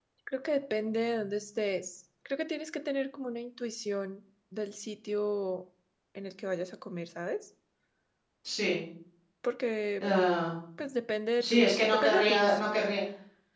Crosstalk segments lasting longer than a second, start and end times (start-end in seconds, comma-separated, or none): 11.4-12.6